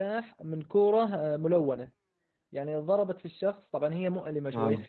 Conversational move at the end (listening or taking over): listening